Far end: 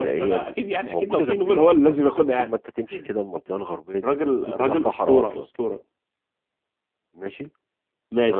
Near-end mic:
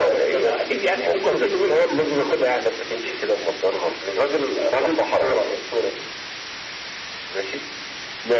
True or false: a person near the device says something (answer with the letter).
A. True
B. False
B